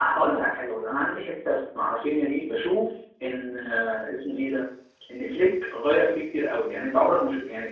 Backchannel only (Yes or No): Yes